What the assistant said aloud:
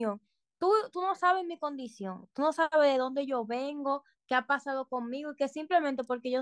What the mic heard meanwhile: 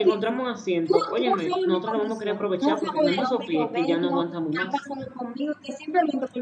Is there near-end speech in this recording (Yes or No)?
Yes